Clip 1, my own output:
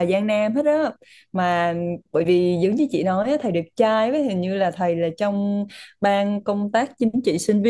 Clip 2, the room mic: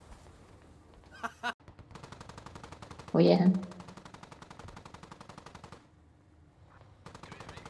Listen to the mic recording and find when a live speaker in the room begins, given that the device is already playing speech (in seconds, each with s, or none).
3.1 s